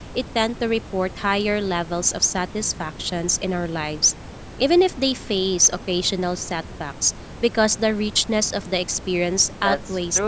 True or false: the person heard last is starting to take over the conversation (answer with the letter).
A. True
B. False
A